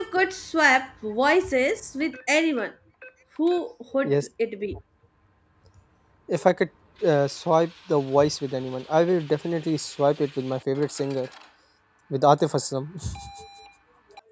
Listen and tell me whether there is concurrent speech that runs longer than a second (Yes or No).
No